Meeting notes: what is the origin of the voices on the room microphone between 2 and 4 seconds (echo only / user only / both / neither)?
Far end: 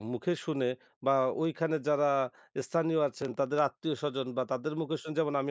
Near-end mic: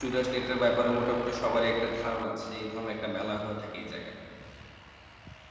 user only